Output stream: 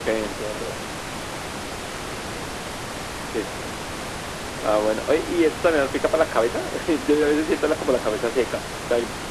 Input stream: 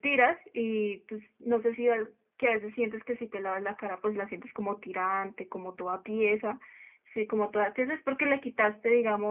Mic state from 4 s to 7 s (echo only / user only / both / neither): user only